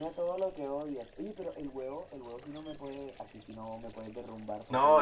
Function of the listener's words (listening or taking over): taking over